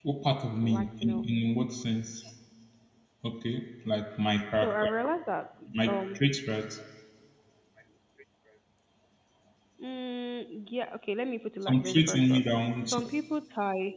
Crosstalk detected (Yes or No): Yes